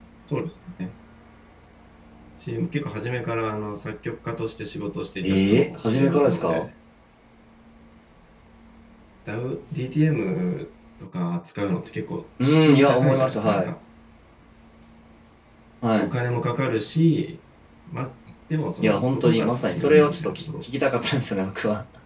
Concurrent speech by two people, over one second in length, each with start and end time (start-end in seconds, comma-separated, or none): 5.2-6.7, 12.4-13.7, 18.8-20.4